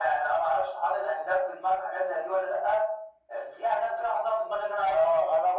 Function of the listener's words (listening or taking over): taking over